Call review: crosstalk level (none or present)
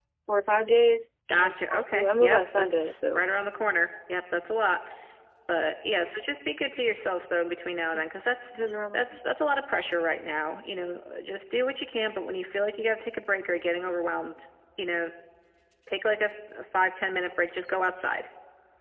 present